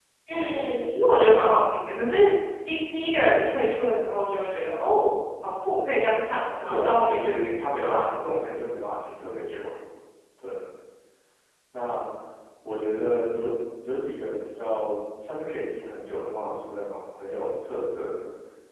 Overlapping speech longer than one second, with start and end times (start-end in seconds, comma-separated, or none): 6.7-8.0